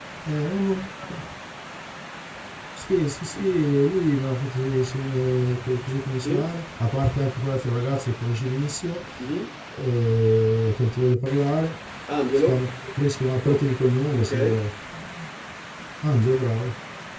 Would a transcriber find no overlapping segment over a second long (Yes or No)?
Yes